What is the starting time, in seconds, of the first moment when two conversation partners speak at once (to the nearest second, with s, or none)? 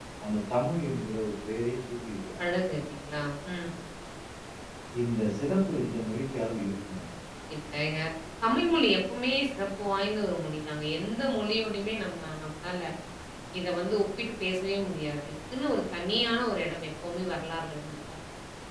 none